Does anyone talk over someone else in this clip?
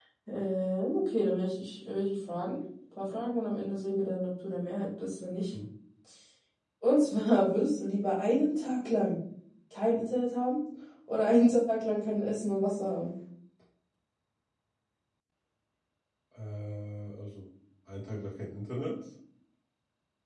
No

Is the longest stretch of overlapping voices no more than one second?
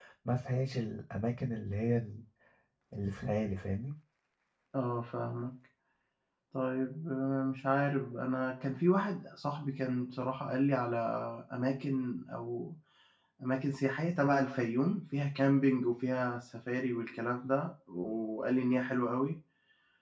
Yes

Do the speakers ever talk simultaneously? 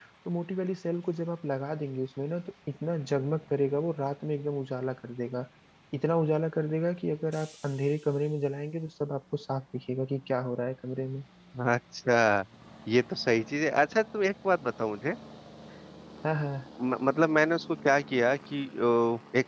No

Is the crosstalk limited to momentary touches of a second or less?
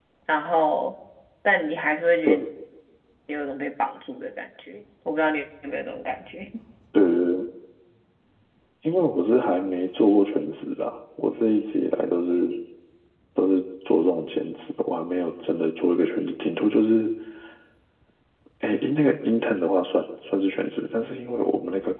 Yes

